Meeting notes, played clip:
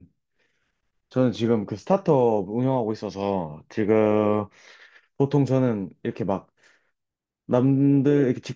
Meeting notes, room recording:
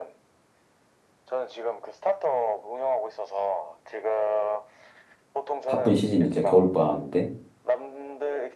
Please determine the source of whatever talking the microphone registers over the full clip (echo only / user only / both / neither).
both